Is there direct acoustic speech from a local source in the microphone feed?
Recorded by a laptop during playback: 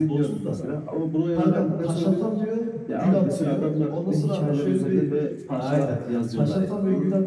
Yes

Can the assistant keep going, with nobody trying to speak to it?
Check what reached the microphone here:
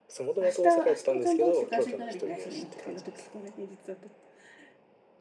No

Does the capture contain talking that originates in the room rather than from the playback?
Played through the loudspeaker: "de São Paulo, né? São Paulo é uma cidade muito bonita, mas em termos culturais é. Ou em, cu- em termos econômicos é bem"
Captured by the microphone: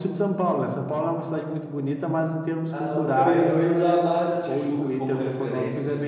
Yes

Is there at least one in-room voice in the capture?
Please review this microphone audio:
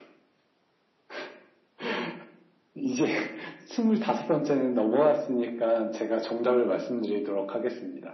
No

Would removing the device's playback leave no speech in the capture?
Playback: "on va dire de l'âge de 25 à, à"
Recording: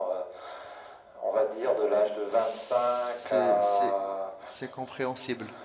No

